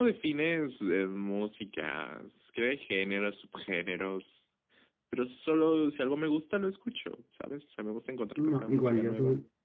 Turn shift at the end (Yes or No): Yes